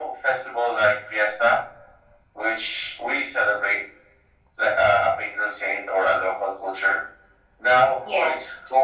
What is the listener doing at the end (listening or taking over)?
listening